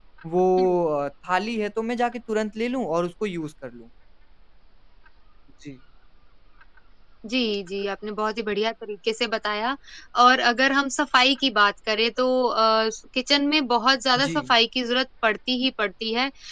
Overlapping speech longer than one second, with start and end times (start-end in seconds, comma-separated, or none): none